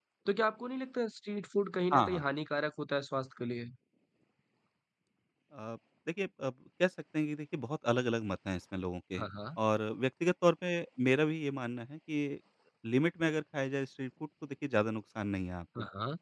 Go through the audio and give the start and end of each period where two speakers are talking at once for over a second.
none

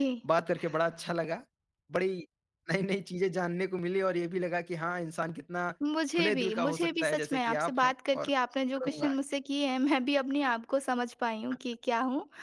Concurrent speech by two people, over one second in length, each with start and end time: 6.2-8.3

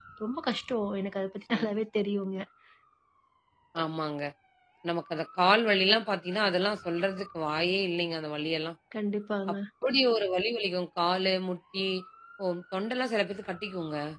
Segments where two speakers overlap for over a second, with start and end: none

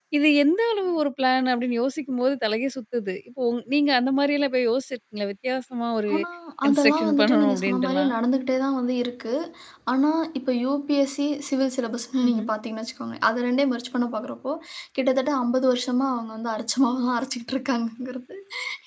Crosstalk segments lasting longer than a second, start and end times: 6.7-8.2

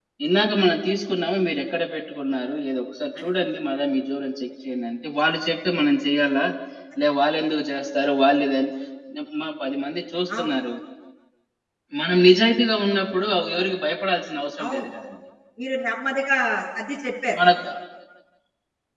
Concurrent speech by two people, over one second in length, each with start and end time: none

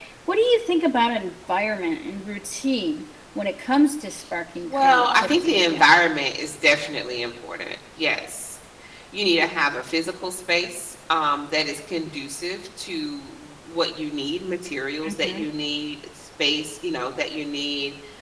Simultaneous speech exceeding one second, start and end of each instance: 4.6-5.9

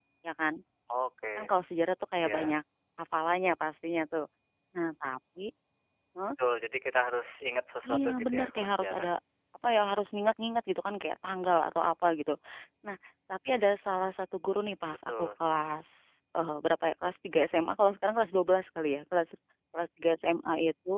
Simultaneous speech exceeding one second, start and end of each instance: 7.9-9.1

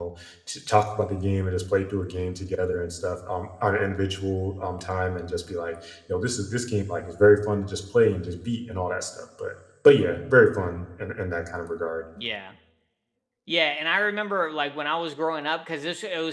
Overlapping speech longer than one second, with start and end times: none

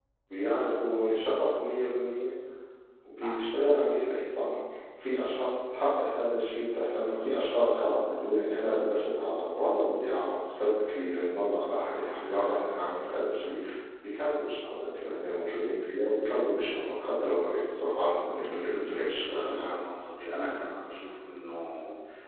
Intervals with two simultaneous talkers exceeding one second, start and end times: 18.4-19.7

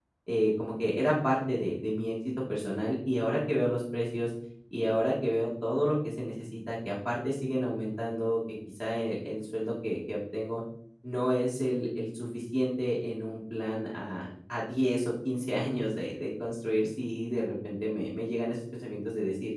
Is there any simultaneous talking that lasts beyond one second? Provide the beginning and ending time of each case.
none

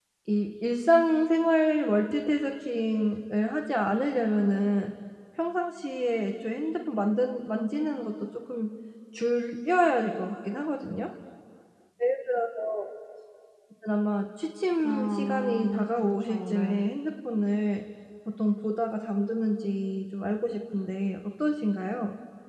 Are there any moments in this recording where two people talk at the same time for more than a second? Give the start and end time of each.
14.8-16.8

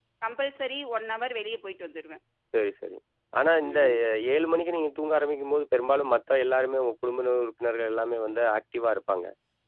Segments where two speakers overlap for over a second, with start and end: none

